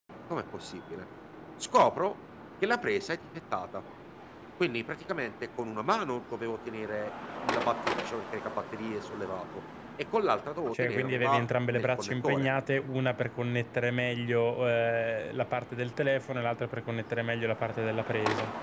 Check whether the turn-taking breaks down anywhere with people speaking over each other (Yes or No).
Yes